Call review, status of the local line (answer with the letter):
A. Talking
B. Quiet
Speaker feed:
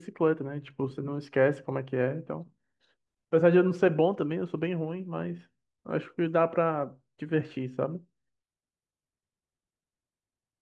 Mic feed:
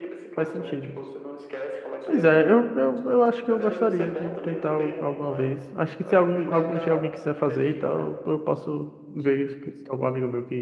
A